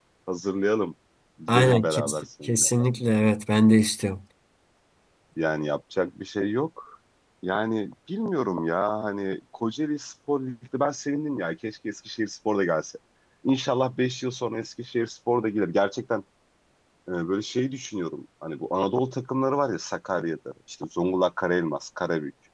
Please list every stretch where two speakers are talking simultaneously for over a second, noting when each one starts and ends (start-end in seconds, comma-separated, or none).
1.5-2.7